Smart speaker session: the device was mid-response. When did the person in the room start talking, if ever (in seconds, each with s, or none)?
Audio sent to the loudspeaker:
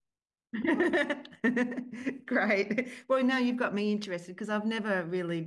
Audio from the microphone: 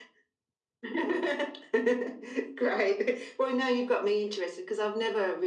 none